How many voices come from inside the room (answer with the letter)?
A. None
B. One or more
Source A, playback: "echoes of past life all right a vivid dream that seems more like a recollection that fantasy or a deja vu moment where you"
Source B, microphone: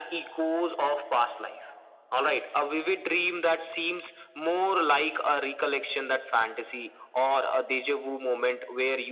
A